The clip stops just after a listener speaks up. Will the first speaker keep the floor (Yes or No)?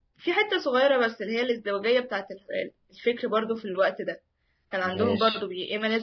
Yes